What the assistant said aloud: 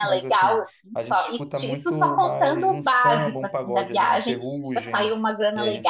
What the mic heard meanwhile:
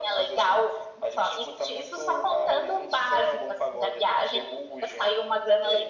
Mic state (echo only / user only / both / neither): echo only